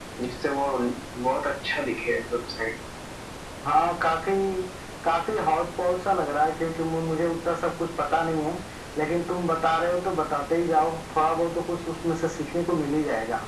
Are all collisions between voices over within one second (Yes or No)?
Yes